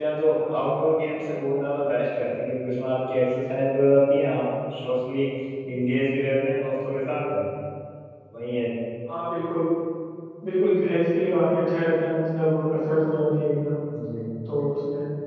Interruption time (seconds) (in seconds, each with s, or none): none